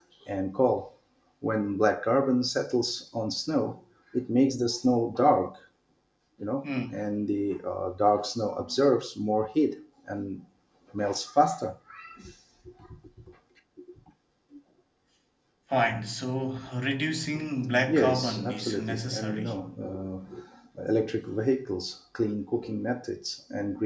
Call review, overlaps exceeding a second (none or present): present